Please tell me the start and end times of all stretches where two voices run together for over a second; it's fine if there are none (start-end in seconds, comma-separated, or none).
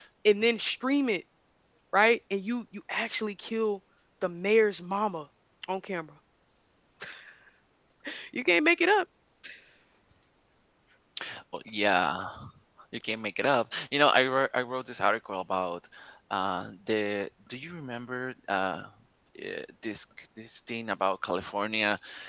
none